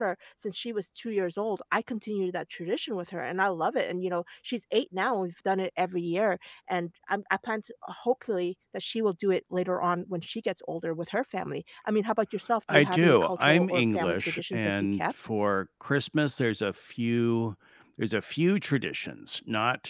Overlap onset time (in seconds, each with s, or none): 12.7 s